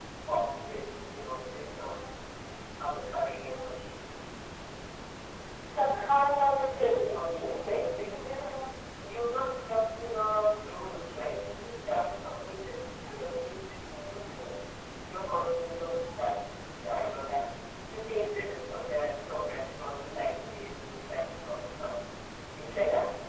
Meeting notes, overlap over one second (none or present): none